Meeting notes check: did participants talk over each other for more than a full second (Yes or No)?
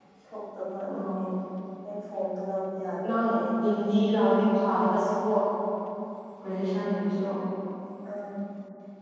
No